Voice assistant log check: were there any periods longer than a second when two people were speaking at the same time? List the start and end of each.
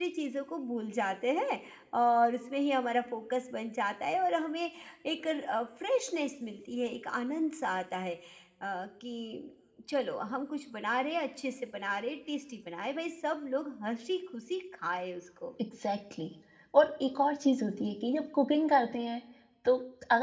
none

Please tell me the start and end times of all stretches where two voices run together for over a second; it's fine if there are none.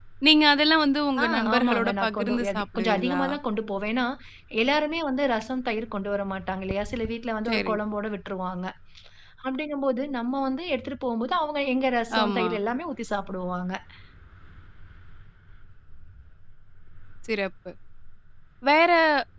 1.2-3.2

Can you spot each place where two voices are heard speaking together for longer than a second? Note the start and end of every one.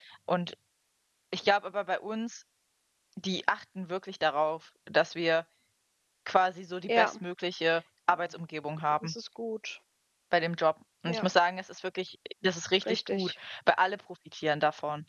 none

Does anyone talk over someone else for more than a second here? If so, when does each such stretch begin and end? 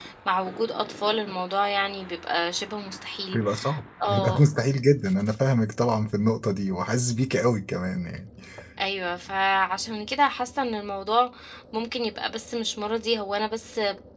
none

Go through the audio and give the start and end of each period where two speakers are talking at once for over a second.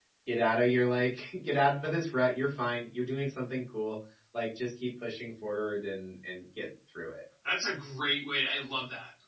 none

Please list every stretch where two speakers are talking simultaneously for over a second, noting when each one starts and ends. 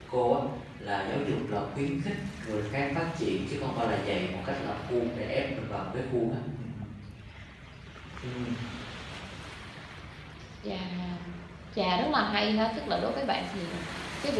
none

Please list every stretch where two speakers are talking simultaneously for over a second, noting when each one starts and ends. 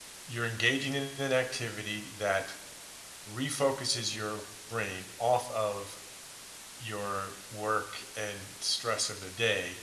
none

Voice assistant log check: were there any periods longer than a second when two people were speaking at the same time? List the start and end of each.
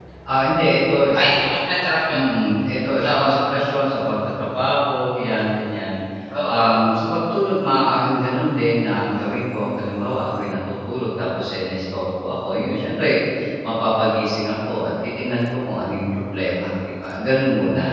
none

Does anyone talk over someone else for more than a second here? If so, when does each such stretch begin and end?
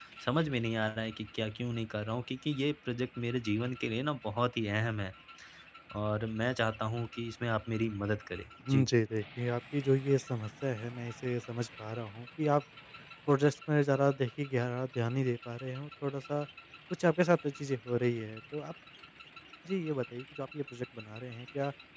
none

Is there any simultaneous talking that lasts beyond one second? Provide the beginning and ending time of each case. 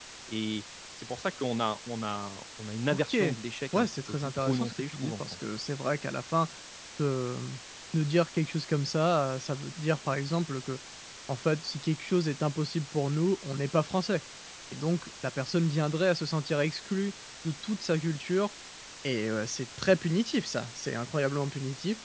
3.7-5.4

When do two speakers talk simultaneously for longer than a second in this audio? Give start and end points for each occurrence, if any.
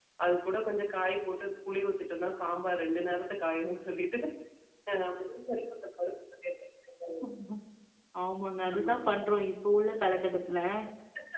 none

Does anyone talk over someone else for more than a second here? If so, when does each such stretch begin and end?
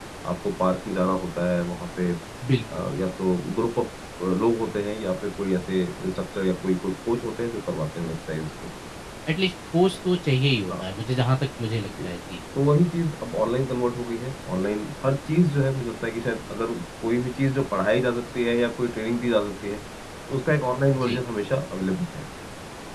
none

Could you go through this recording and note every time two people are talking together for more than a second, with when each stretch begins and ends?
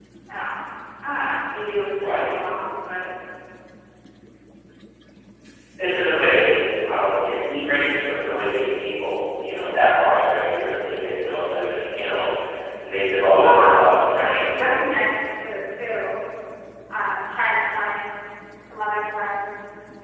13.3-14.8

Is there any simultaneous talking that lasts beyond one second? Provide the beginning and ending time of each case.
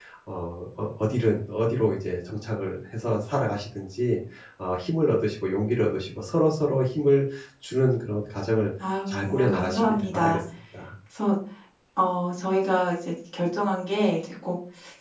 9.1-10.4

